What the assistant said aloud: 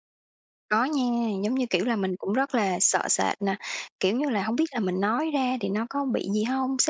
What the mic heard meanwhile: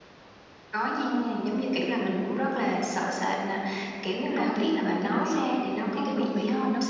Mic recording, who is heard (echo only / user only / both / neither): both